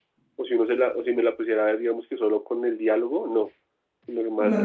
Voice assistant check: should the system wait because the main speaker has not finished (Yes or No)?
Yes